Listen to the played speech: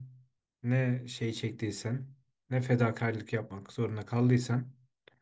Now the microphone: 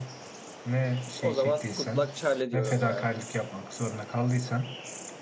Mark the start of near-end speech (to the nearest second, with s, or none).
1 s